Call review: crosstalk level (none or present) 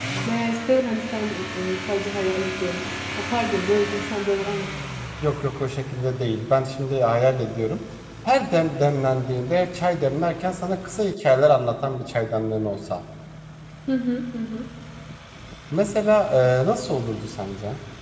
none